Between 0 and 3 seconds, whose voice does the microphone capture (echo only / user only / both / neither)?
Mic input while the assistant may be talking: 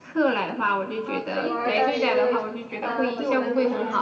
both